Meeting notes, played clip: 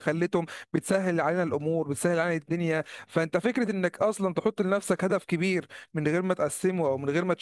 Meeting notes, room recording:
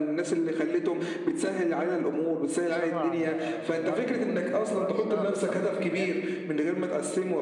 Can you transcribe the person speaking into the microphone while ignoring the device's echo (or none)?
اشتغل على الموارد الموجوده في ايدك دلوقتي اشتغل وفقا لامكانياتك